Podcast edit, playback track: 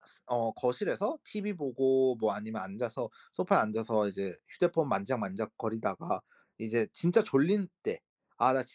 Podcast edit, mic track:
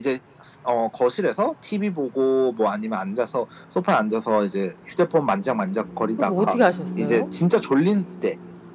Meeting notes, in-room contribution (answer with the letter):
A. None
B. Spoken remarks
B